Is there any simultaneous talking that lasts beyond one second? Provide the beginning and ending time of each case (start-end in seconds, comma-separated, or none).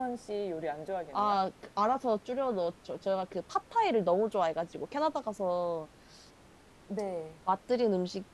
none